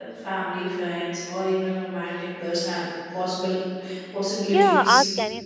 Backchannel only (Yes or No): No